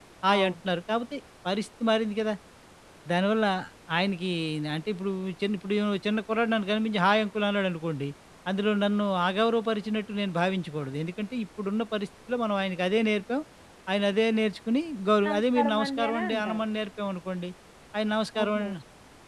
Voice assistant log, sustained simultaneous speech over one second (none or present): present